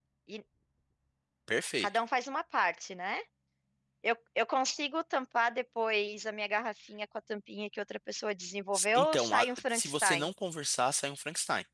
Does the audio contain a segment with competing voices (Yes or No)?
Yes